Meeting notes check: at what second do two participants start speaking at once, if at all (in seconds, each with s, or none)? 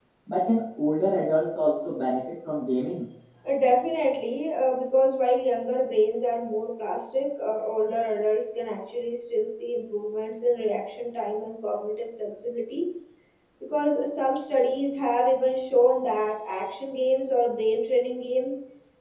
none